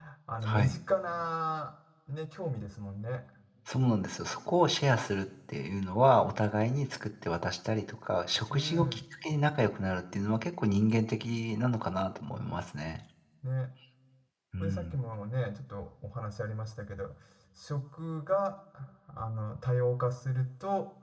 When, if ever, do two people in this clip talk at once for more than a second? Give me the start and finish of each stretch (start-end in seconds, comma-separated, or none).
none